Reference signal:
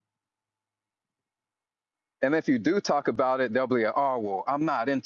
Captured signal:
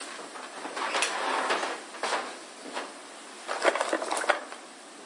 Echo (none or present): none